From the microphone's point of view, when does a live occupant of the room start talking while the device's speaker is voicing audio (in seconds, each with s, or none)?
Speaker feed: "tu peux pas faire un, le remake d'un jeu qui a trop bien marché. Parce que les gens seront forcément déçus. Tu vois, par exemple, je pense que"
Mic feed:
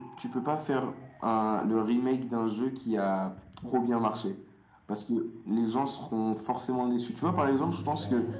7.2 s